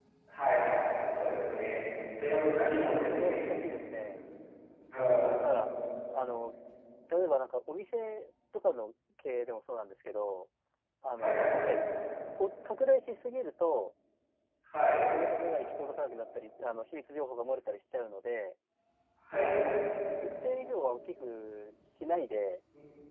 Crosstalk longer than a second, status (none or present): none